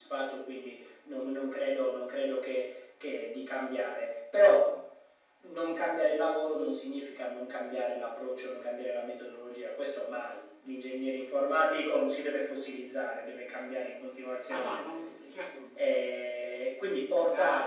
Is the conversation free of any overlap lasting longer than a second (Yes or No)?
Yes